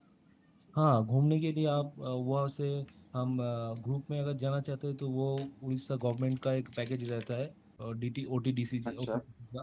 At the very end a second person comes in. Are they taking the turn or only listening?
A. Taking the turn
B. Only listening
B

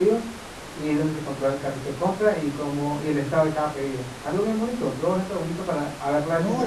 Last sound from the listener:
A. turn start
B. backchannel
A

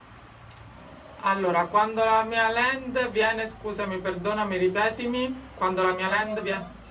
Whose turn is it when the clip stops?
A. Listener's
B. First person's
A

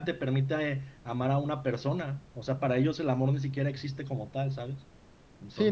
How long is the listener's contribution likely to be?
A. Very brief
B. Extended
B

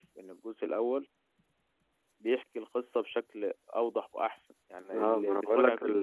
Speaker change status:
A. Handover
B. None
A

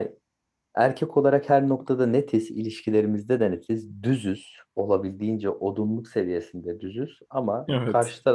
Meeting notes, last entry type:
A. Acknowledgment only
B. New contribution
A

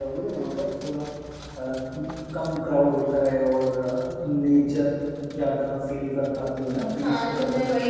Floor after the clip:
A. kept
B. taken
B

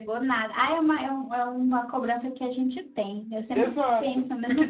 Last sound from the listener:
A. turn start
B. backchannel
A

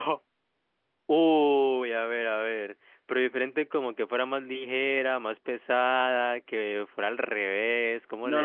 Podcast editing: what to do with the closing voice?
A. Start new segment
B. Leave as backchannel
A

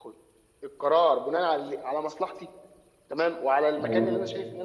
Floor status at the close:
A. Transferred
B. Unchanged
B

